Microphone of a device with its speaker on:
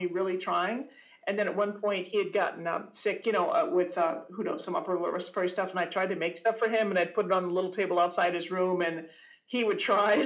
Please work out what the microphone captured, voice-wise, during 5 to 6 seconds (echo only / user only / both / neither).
echo only